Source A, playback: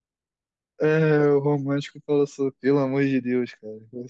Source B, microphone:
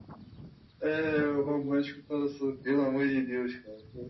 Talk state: both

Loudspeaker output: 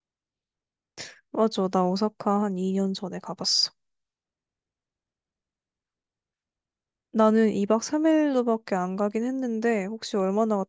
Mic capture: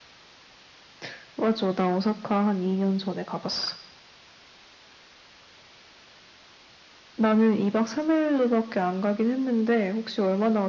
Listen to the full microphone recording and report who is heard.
echo only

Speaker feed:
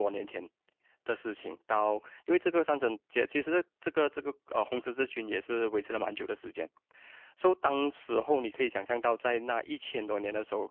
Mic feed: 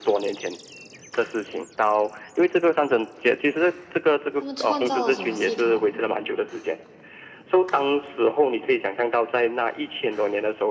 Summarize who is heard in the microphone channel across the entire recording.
both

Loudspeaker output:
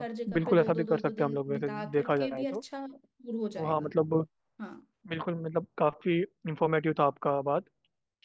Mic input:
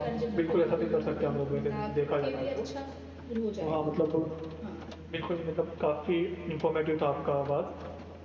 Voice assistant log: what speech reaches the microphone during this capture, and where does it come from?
echo only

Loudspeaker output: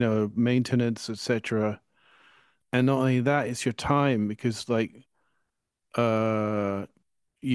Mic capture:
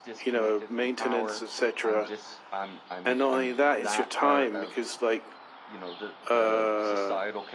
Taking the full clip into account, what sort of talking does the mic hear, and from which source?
both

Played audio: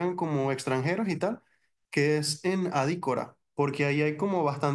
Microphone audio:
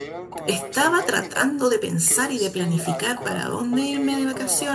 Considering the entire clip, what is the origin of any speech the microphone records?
both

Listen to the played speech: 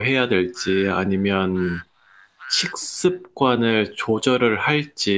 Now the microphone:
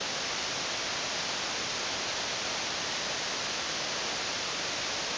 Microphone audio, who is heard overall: neither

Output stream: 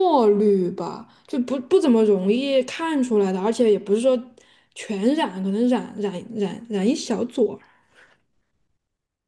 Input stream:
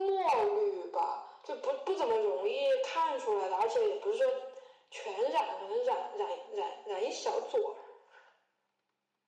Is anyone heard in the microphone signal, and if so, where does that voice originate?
echo only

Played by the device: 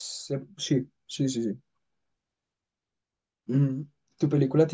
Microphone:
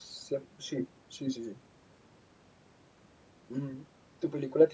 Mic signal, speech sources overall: echo only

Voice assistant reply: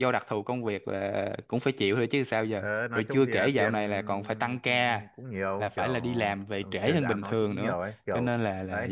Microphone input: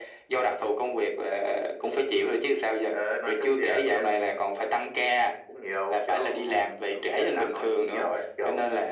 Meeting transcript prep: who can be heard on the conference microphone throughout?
echo only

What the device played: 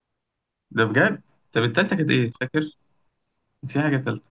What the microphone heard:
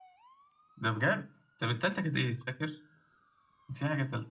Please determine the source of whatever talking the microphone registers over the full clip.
echo only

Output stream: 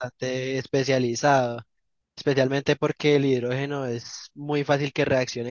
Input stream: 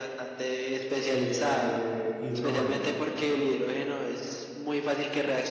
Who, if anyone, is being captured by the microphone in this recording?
both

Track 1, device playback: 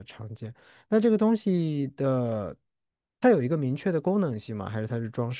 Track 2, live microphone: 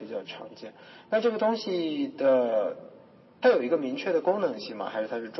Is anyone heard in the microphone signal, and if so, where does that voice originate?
echo only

